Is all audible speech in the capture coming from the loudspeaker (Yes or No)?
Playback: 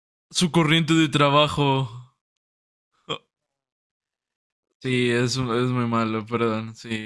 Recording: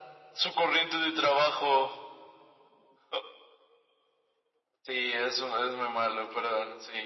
Yes